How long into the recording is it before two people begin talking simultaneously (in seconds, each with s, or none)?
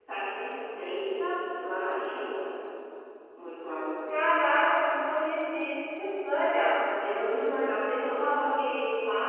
none